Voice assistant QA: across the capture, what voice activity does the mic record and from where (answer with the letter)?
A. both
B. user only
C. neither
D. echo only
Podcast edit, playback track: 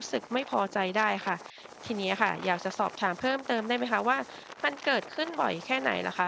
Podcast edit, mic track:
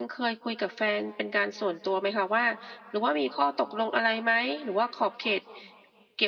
B